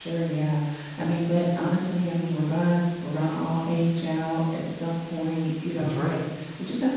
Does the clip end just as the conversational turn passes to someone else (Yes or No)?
No